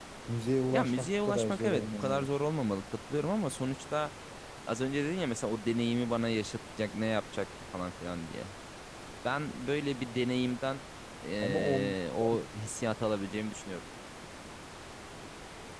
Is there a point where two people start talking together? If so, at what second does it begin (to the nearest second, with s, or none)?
1 s